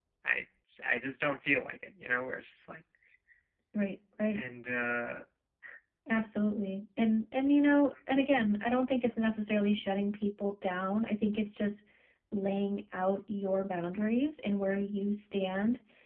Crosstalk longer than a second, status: none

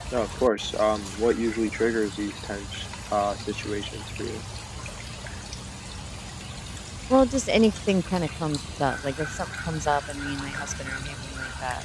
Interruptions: none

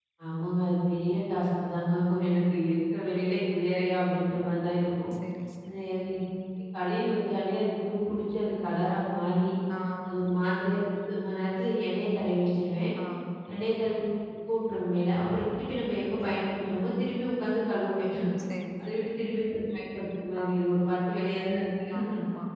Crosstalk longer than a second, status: none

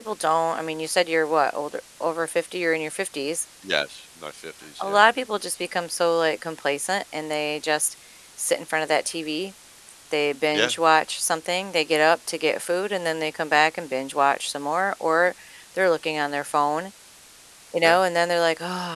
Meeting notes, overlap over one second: none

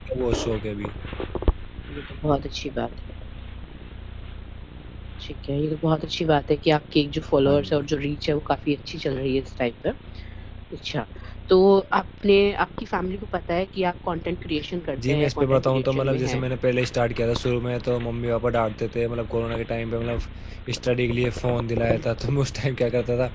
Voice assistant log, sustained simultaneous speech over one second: present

